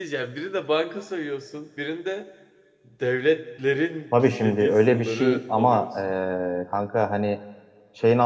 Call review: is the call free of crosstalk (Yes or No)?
No